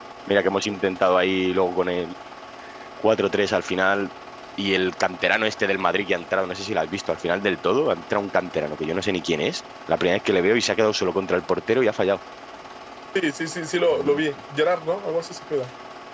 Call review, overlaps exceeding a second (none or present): none